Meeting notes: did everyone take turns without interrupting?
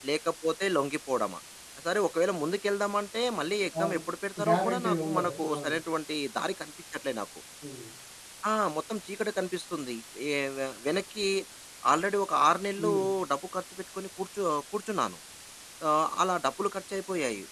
No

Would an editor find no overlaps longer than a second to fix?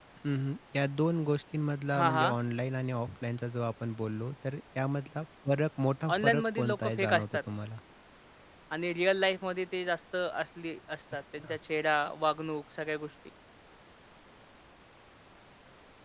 No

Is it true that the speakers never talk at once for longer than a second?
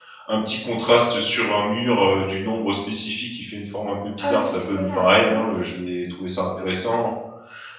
No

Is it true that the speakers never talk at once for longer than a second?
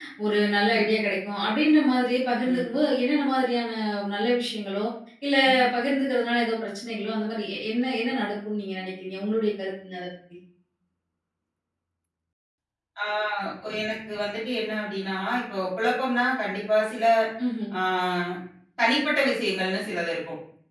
Yes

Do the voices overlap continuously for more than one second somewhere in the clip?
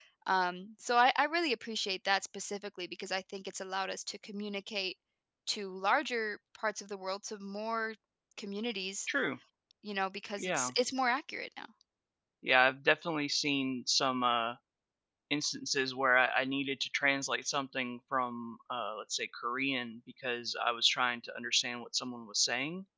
No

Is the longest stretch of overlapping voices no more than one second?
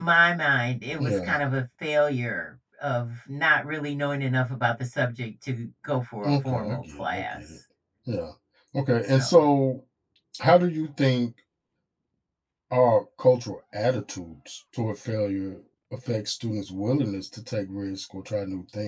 No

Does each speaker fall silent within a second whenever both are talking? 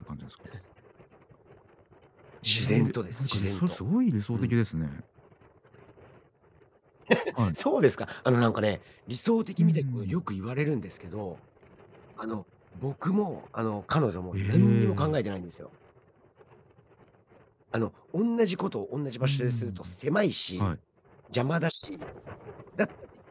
No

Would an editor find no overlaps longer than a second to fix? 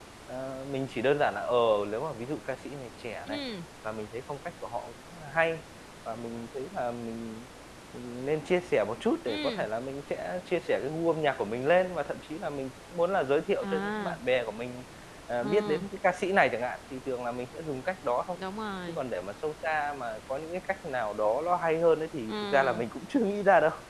Yes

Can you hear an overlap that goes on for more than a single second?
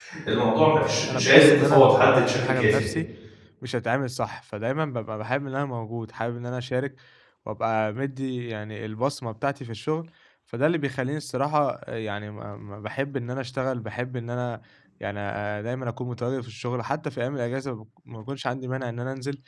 Yes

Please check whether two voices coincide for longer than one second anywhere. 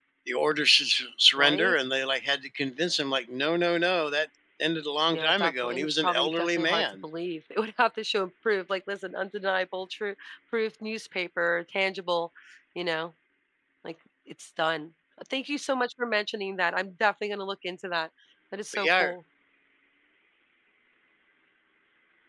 Yes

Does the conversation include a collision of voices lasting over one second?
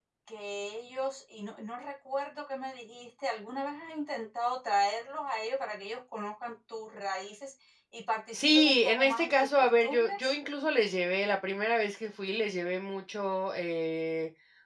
Yes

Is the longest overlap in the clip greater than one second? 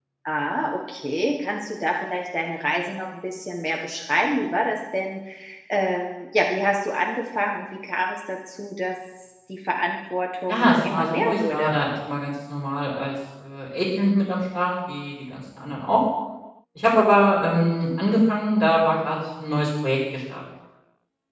Yes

